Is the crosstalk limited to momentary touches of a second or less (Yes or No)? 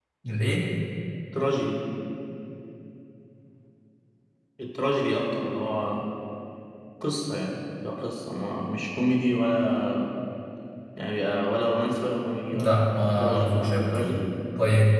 No